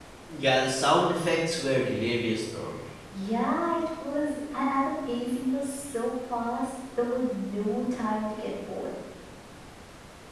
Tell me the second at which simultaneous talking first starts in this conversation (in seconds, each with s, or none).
none